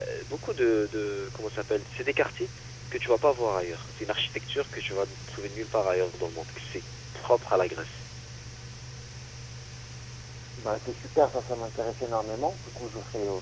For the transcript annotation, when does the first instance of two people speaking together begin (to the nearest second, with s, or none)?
none